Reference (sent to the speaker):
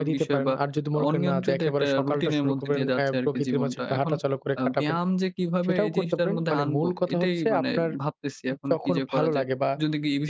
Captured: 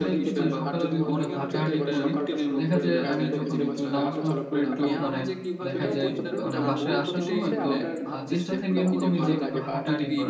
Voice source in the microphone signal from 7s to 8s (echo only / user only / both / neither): both